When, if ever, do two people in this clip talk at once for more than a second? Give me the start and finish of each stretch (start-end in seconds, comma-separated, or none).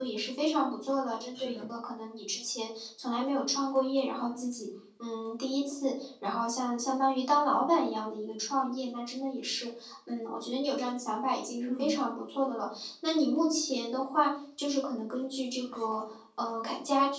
none